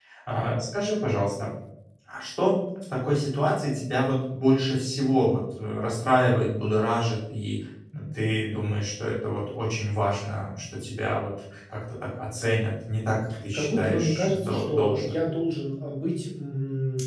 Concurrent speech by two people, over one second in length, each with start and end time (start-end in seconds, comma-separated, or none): 13.5-15.2